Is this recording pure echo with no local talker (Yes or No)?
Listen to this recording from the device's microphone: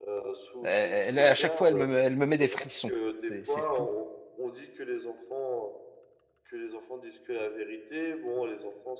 No